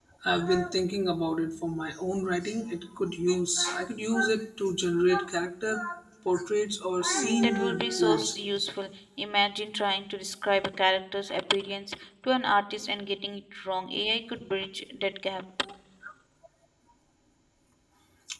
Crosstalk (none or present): present